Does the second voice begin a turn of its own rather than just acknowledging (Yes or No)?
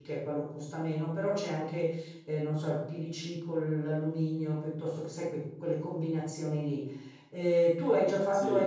No